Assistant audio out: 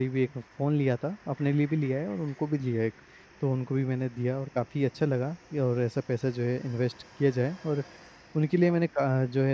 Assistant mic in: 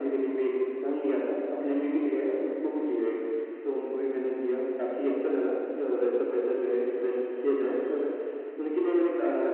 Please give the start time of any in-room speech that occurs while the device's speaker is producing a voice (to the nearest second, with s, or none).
none